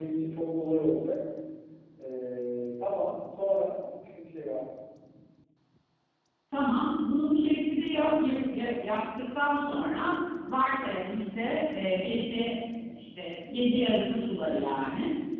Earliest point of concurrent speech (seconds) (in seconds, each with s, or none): none